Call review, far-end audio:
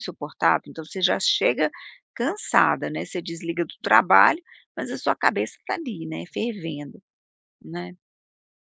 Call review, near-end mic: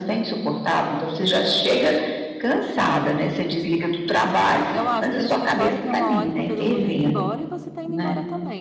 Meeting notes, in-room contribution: present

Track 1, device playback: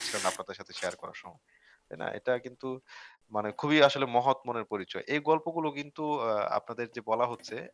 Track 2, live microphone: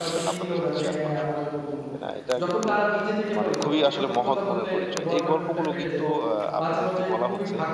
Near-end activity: present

